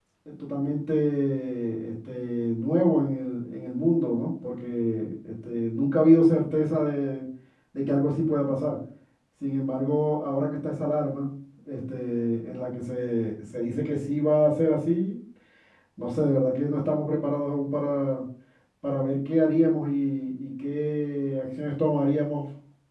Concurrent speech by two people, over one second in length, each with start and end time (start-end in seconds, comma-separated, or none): none